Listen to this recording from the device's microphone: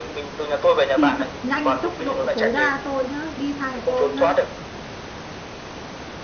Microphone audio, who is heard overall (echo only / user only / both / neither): both